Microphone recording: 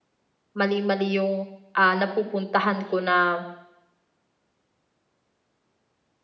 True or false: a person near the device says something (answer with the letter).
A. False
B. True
B